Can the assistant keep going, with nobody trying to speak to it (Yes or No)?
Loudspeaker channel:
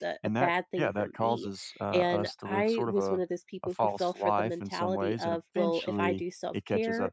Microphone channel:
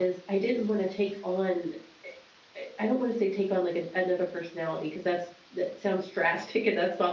No